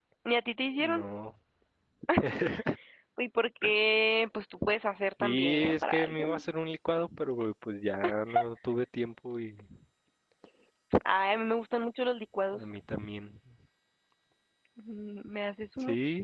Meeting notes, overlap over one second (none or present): present